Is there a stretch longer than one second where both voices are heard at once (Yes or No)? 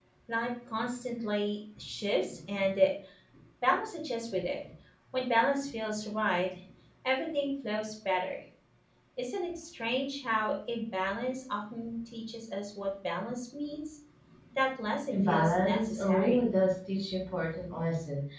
Yes